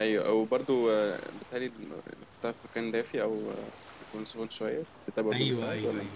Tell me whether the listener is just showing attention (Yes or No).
No